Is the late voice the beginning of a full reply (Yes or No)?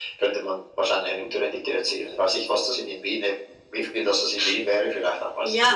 Yes